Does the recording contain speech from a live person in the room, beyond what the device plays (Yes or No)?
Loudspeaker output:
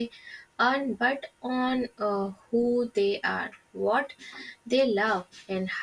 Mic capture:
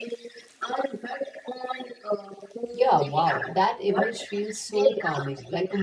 Yes